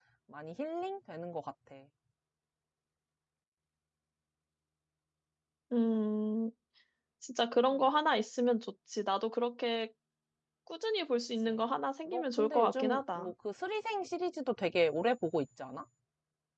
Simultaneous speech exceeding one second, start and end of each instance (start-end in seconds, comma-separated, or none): 12.1-13.3